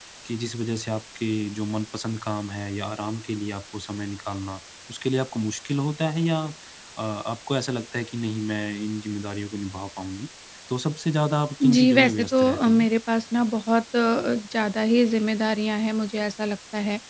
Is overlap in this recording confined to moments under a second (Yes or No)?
No